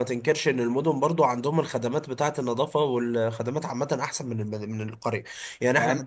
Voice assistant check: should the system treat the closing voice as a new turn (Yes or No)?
No